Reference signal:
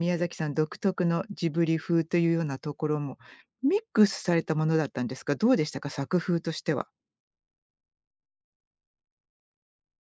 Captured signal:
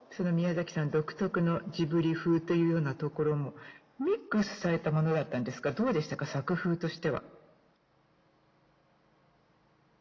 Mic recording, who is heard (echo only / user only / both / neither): echo only